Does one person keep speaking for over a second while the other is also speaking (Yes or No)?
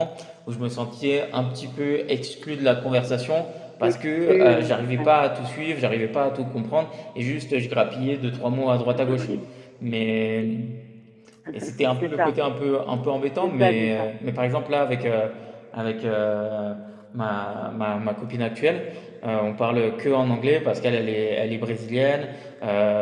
Yes